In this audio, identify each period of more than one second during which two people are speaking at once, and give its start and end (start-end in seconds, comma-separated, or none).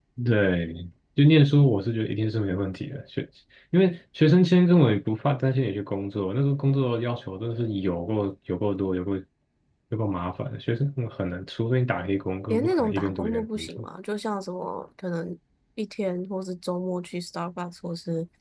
12.5-13.8